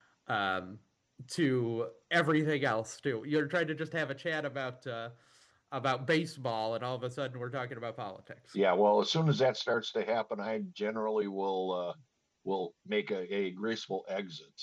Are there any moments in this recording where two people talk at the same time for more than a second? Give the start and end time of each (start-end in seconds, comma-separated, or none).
none